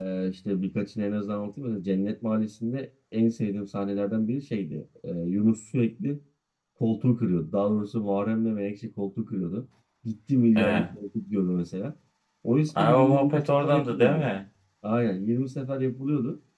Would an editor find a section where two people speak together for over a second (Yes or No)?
Yes